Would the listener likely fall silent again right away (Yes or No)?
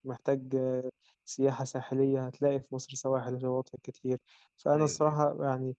Yes